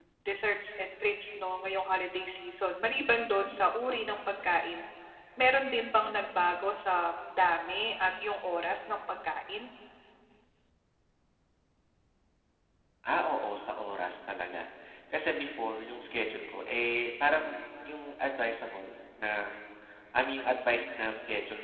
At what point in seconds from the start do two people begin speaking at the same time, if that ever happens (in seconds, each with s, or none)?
none